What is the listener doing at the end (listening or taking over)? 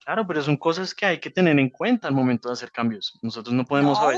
taking over